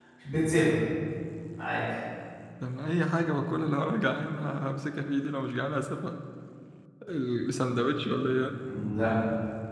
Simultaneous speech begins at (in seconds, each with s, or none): none